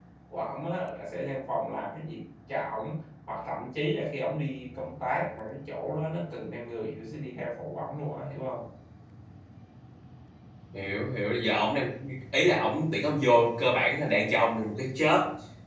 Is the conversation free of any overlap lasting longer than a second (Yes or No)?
Yes